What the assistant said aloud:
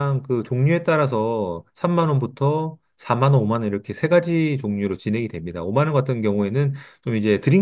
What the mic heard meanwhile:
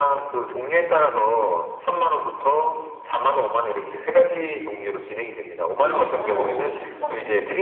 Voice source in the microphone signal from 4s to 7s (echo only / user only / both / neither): both